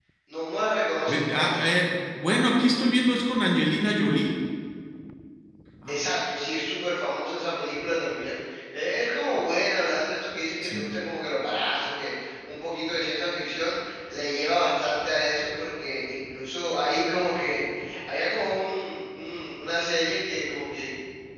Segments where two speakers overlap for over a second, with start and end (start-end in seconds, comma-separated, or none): none